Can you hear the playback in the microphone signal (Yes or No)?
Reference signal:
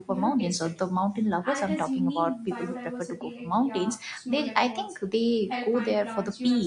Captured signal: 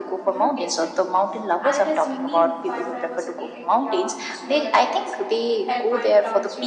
Yes